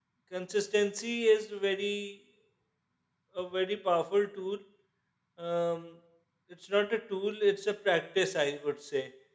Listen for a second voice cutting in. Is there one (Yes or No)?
No